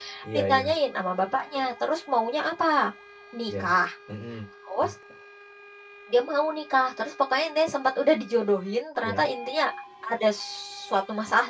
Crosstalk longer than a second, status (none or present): none